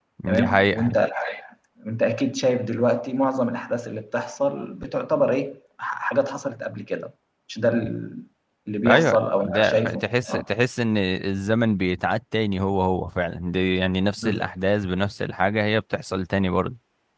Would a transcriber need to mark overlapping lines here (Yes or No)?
Yes